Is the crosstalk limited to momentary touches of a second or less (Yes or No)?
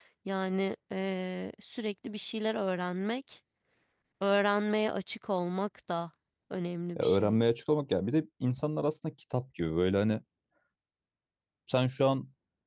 Yes